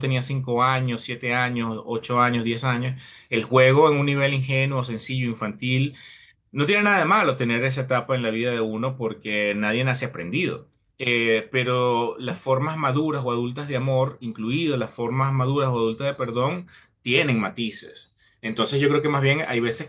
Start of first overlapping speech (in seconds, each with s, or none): none